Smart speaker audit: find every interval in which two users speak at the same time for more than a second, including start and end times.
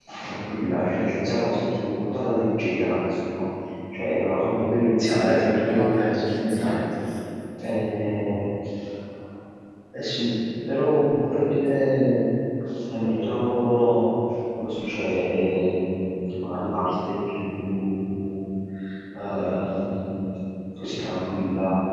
5.0-6.8

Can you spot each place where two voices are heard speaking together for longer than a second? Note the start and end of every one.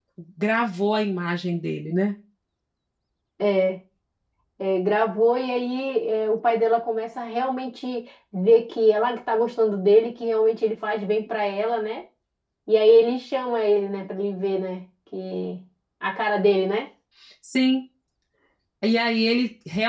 none

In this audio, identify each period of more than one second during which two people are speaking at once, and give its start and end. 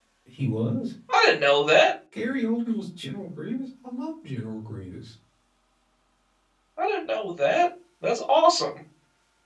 none

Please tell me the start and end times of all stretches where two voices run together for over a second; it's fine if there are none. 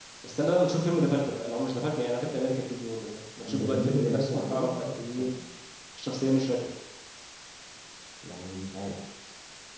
3.4-5.3

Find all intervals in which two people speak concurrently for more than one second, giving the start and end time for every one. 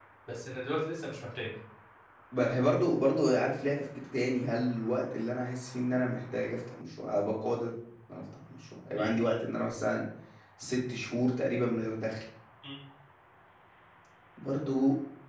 none

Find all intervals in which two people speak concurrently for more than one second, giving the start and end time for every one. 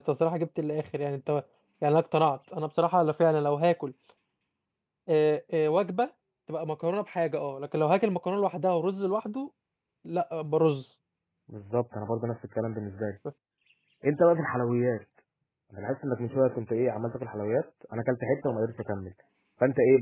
none

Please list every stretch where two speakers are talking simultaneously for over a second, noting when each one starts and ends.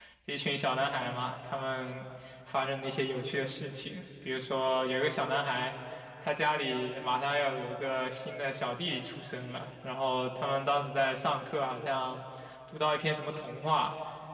none

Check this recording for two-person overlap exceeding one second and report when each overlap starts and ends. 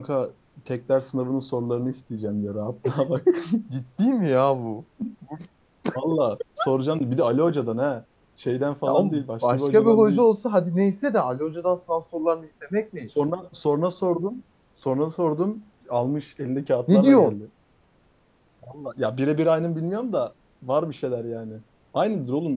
8.9-10.3

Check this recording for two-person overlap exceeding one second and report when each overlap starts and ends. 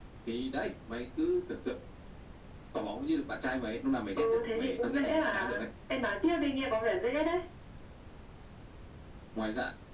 4.2-5.7

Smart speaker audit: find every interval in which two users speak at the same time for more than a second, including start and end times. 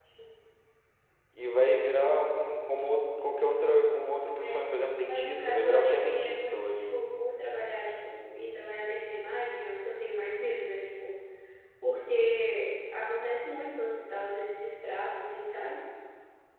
5.0-6.8

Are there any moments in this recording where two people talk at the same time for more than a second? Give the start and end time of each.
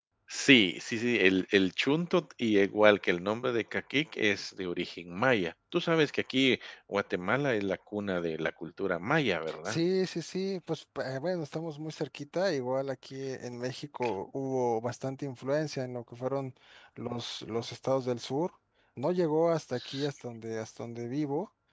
none

